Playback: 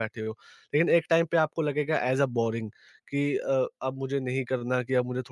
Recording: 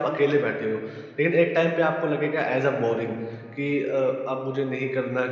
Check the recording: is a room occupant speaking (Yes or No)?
No